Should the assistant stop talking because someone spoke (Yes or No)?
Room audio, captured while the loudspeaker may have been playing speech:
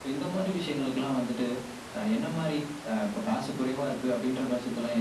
No